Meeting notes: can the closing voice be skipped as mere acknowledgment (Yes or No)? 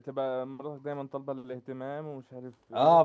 No